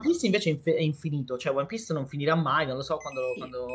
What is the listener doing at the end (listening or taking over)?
taking over